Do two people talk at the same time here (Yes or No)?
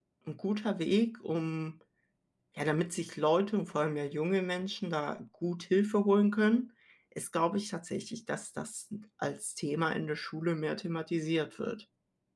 No